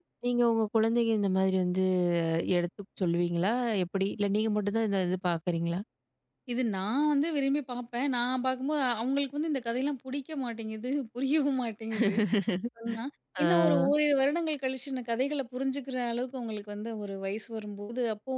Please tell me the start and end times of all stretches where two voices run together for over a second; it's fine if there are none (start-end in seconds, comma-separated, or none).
none